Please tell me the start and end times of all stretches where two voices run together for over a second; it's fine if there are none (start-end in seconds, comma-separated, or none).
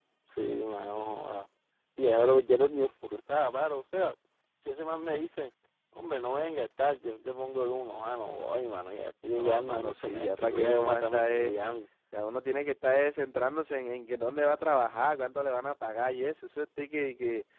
9.3-11.6